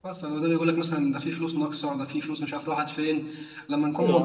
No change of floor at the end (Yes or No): Yes